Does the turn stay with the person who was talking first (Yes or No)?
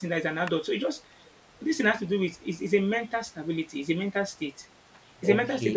No